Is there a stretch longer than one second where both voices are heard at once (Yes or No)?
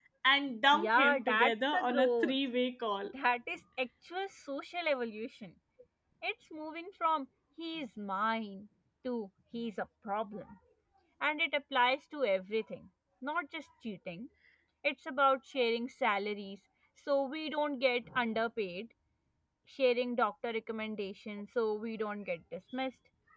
Yes